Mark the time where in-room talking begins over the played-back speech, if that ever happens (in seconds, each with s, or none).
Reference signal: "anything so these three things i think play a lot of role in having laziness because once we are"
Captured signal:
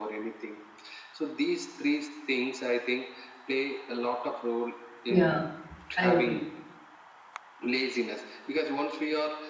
5.1 s